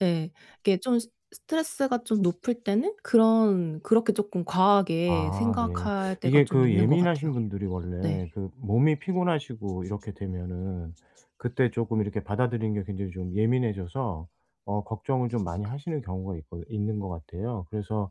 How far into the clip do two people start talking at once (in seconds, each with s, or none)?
5.1 s